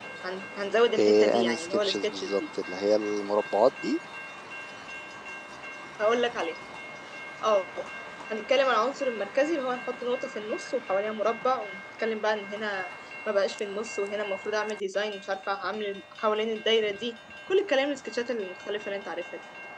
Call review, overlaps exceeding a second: present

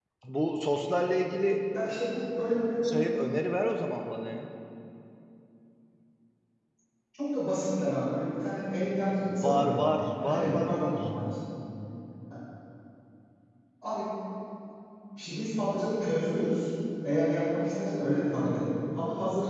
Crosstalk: present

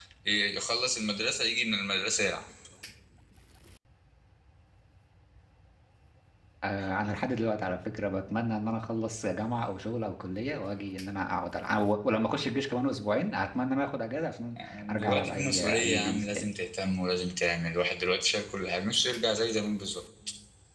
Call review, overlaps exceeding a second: present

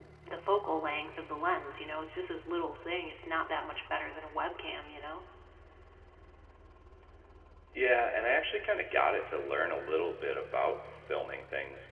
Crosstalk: none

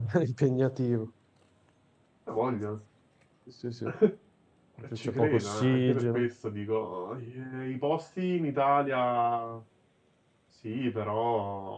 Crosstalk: present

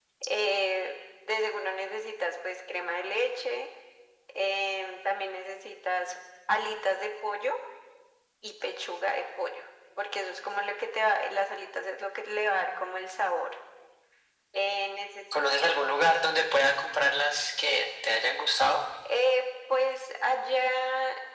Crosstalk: none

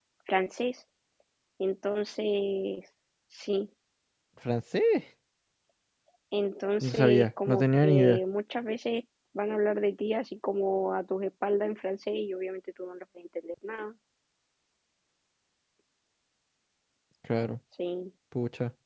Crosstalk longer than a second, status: present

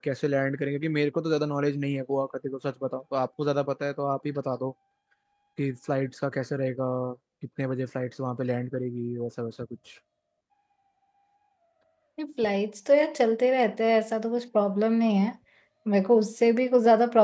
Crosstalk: none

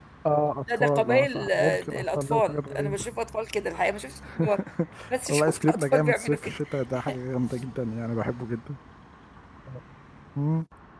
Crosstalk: present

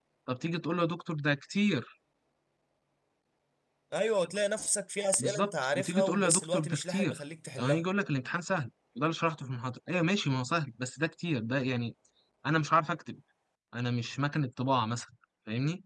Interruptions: present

